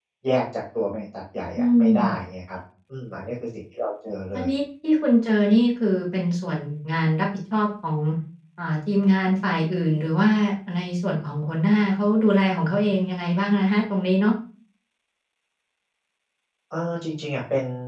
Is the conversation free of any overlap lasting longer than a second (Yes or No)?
Yes